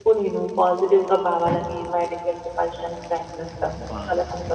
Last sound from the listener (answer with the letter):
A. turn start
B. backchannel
A